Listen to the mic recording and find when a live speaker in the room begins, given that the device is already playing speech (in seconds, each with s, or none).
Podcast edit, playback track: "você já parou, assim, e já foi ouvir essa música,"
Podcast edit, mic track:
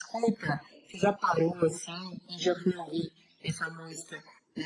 none